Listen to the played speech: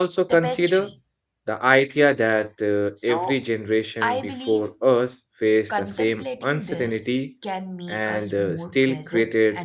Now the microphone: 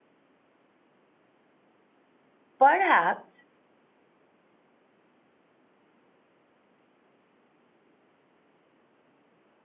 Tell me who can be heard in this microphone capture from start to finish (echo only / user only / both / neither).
user only